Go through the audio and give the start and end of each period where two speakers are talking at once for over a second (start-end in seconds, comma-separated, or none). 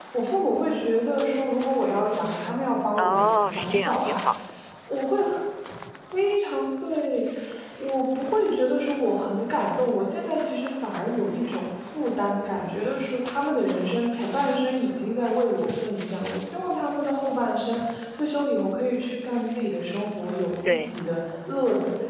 3.0-4.2